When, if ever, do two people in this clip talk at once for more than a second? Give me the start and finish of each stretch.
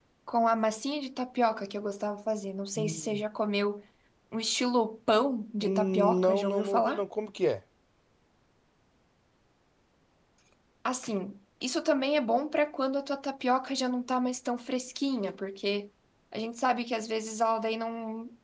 5.6-7.0

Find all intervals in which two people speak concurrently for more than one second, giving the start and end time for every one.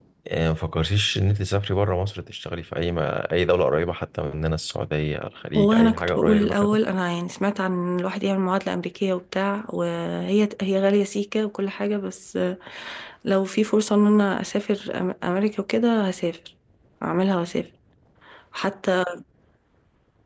5.5-6.8

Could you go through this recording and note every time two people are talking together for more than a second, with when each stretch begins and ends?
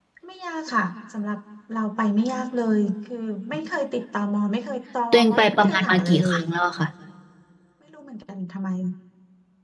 5.1-6.4

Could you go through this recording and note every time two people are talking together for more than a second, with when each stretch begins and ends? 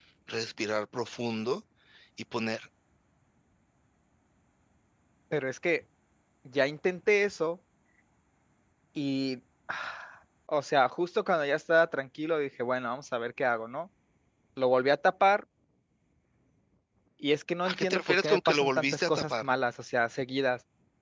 17.6-19.4

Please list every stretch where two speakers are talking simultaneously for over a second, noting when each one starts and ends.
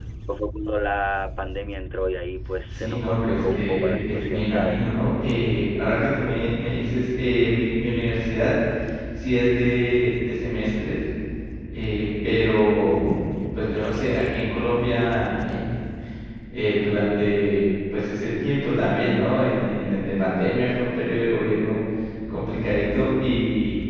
2.7-4.8

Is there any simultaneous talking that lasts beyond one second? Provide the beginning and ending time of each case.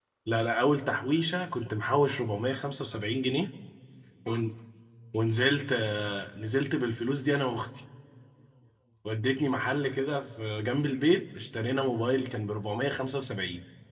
none

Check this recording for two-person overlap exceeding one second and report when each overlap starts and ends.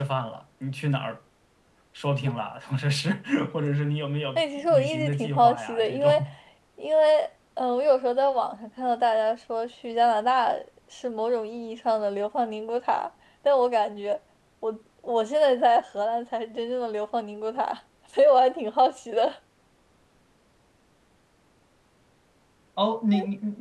4.3-6.2

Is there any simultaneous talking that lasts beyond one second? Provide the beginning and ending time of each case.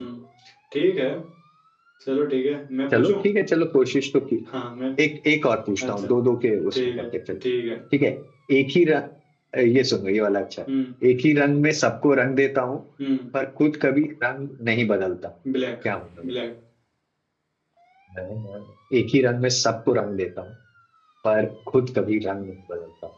none

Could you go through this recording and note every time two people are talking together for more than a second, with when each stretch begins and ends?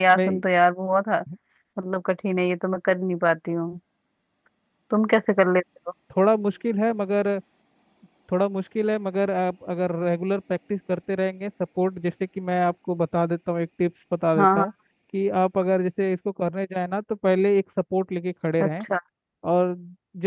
none

